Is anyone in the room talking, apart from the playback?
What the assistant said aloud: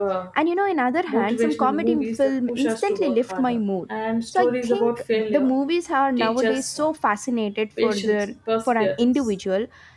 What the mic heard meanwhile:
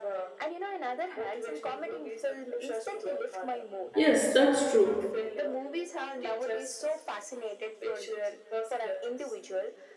Yes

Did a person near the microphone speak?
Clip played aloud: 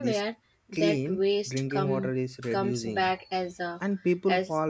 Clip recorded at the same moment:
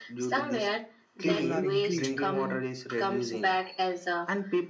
Yes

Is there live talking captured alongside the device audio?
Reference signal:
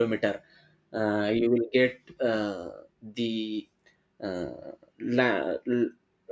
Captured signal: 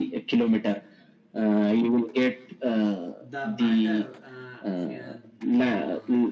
Yes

